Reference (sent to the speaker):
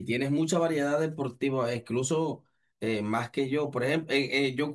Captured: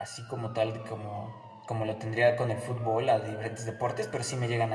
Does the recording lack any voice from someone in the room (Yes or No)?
No